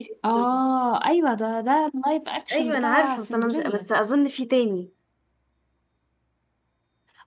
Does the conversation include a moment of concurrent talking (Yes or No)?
Yes